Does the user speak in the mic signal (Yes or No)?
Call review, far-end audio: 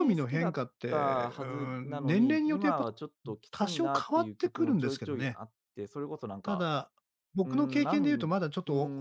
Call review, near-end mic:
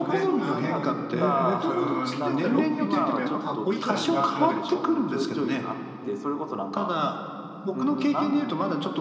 Yes